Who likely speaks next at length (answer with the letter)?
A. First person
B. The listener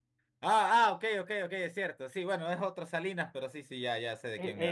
B